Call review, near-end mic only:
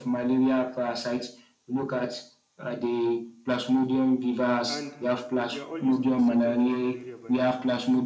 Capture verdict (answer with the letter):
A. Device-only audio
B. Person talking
B